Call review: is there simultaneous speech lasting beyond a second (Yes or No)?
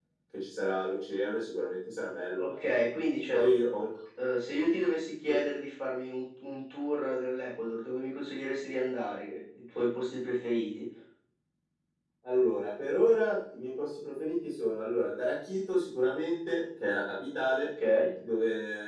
No